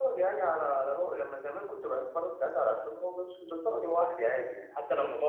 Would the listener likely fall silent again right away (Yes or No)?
Yes